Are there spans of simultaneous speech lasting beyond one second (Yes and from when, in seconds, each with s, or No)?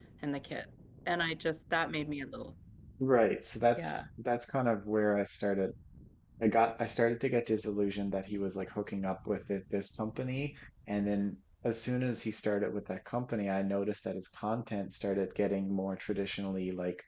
No